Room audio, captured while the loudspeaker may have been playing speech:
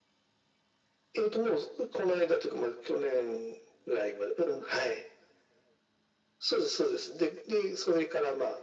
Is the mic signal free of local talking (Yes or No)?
Yes